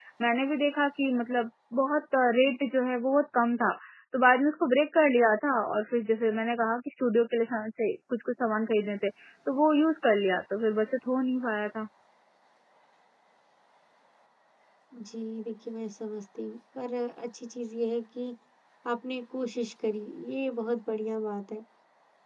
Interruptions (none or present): none